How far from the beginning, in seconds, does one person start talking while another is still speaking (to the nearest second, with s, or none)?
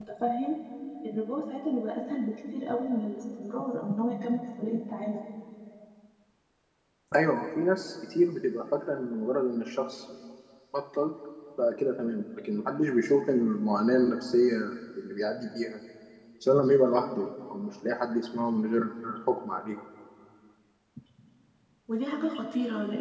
none